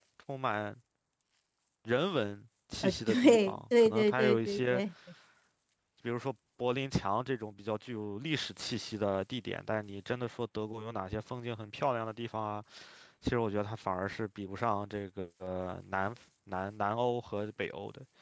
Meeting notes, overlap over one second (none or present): present